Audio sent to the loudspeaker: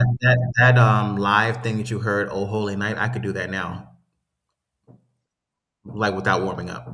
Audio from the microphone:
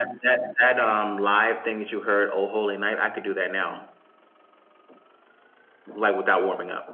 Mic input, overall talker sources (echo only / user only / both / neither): echo only